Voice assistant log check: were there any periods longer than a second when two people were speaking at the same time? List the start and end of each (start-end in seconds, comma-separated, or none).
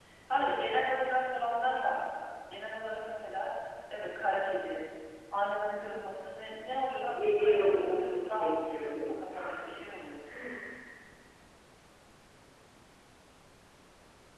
7.1-9.1